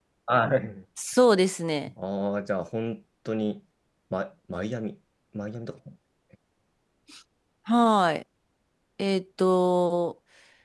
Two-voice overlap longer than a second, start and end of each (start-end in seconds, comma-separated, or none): none